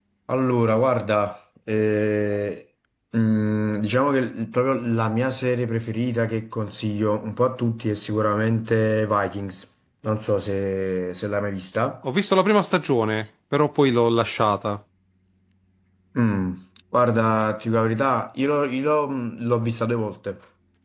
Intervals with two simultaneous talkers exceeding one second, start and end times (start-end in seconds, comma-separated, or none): none